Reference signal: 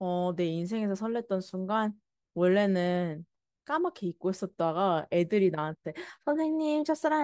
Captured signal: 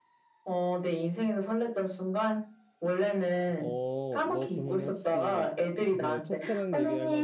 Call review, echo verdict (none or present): present